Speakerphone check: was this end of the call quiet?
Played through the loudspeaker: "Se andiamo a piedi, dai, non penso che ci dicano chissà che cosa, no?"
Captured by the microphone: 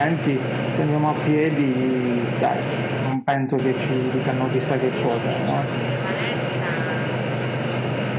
No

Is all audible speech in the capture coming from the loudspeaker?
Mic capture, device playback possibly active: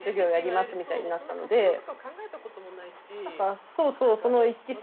No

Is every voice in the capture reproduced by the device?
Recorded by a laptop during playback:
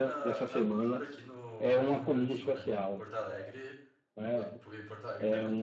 No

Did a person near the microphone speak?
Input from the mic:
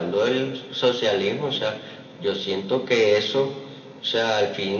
No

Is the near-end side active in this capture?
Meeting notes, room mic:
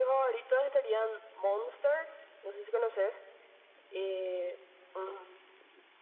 No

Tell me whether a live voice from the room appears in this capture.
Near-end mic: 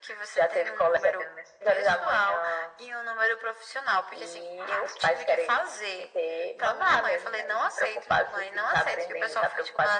No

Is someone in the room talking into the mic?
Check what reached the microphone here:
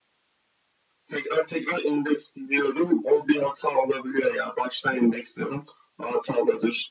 No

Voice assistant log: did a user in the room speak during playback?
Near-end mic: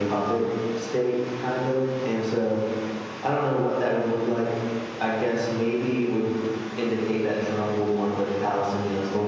No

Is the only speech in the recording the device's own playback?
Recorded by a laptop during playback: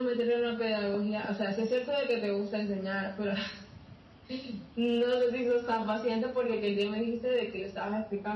Yes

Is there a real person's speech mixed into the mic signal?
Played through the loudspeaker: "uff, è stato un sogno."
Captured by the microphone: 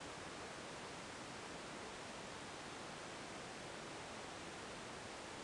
No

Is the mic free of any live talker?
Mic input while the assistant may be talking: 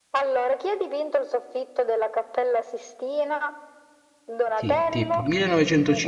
No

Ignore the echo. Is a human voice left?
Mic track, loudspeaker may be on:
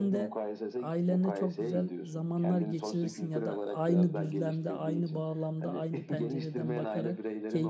Yes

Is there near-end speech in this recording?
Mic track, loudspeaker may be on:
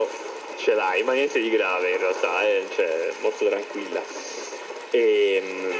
No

